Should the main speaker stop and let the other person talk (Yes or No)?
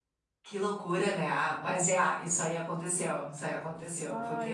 Yes